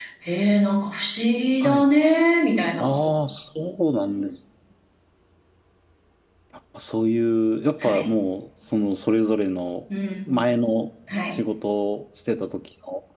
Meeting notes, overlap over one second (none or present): none